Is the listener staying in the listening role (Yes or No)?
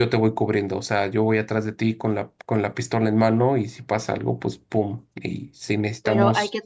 No